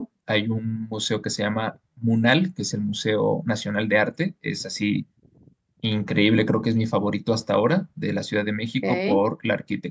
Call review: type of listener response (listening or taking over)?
listening